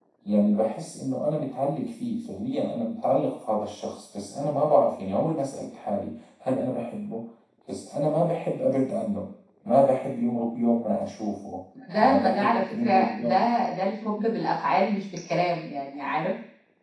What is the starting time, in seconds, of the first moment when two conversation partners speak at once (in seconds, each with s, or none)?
12.0 s